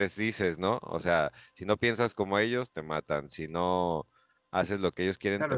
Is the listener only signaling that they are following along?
No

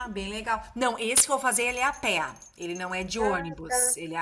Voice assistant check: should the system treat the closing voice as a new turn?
No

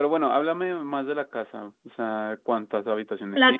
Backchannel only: No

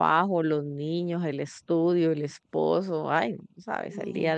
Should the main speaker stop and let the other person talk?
Yes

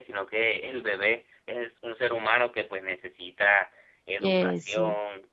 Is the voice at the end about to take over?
No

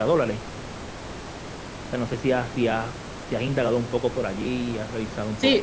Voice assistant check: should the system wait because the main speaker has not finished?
No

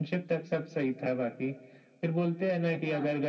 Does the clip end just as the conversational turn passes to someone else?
No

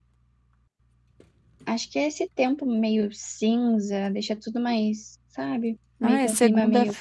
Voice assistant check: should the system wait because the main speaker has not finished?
No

